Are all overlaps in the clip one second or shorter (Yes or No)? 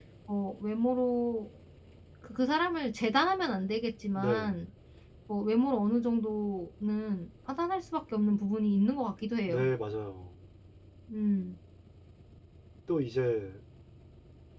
Yes